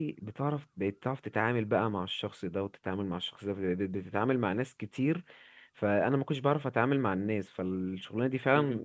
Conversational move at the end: listening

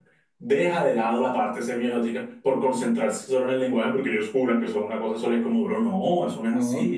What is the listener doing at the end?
taking over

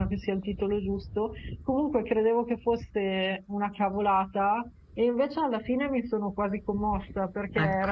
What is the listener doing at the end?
listening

